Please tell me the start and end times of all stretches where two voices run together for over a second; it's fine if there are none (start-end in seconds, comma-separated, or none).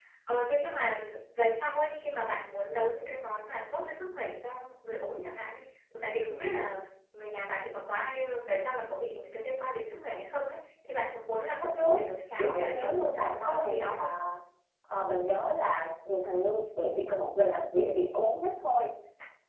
12.4-14.1